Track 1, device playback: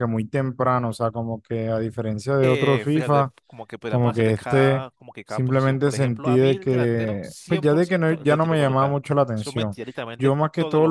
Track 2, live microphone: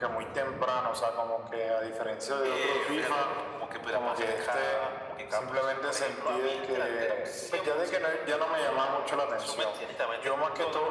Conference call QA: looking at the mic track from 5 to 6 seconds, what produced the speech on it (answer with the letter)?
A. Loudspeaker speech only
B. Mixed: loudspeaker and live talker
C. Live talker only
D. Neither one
A